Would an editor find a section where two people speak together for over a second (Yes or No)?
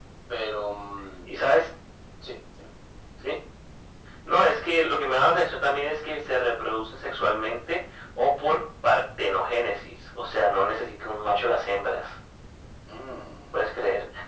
No